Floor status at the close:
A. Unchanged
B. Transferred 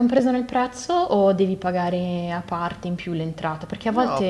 B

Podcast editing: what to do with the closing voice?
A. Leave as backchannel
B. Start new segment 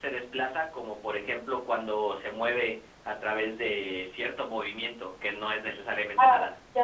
B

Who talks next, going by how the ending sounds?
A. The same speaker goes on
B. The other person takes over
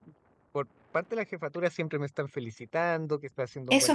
B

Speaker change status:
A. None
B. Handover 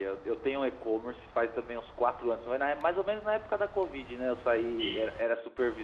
A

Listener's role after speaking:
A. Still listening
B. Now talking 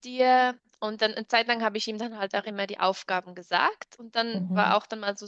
A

